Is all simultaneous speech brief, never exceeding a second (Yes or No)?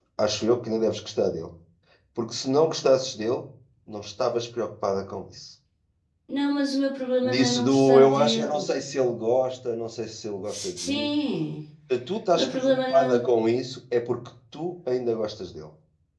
No